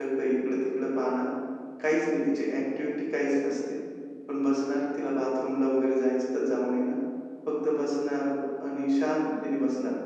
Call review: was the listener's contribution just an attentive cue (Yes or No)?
Yes